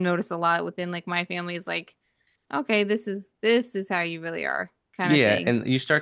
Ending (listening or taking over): taking over